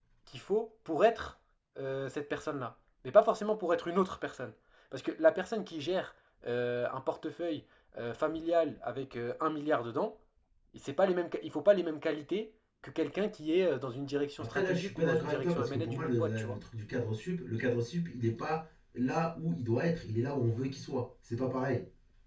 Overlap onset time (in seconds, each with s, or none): 14.4 s